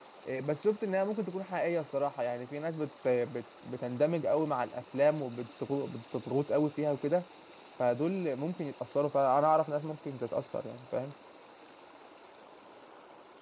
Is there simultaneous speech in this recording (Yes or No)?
No